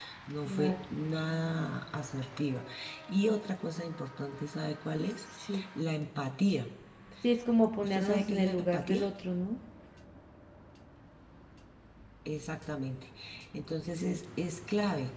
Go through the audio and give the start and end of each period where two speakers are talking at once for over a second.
7.8-9.0

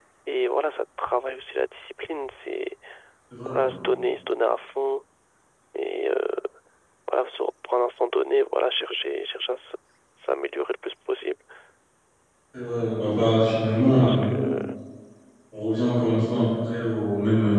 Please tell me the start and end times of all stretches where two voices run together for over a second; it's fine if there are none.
none

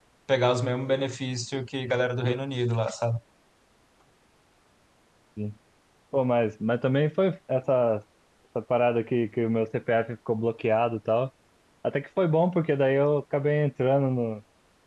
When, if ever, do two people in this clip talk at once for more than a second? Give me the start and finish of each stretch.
none

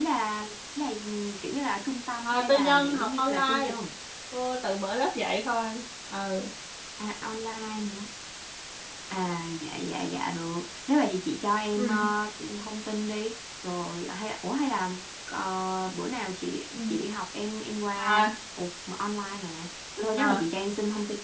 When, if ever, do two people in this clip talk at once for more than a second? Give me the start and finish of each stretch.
2.2-3.7

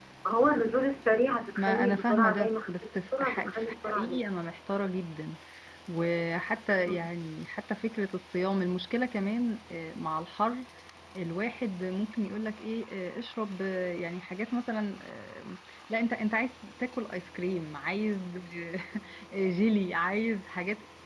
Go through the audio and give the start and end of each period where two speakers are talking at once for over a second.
1.6-4.2

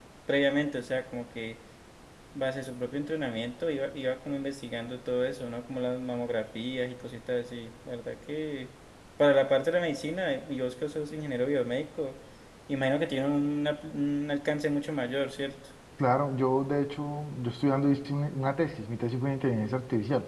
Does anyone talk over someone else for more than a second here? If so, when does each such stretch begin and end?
none

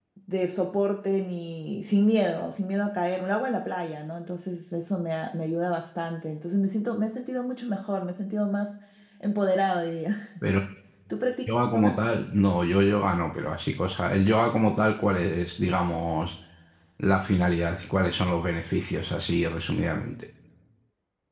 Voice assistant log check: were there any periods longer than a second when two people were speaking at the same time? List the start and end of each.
none

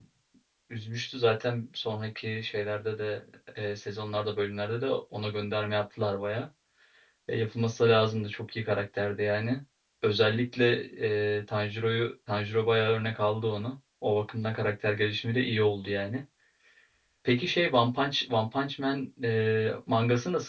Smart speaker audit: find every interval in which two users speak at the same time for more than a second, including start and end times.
none

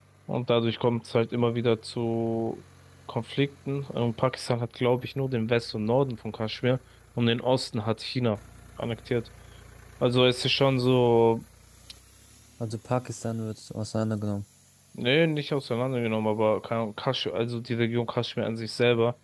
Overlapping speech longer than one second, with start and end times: none

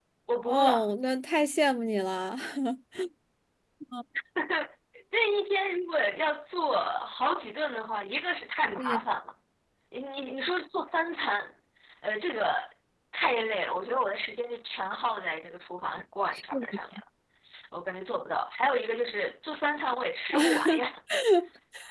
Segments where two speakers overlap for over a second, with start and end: none

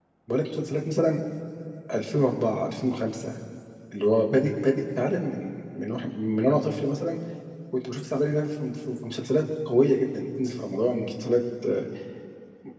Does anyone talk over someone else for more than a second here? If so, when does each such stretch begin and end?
none

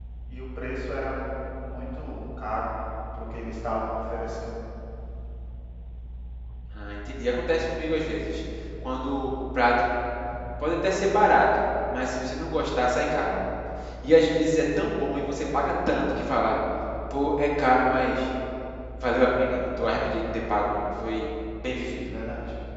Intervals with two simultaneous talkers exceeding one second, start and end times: none

